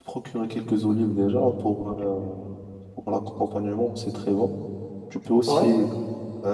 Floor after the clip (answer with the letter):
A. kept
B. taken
A